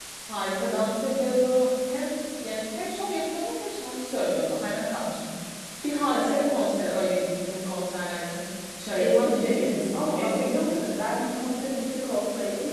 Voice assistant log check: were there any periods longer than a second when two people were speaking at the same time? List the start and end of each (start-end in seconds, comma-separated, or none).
9.0-10.9